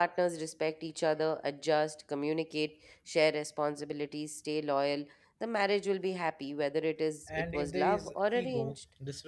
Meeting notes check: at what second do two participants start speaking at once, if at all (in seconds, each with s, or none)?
7.2 s